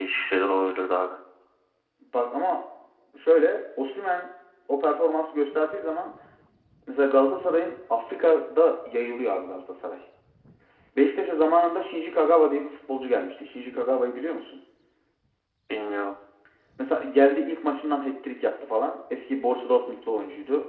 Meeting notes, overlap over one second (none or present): none